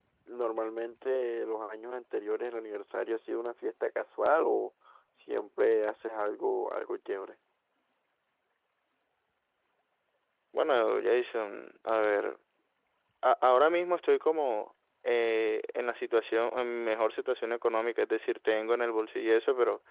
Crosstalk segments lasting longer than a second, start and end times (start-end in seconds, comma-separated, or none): none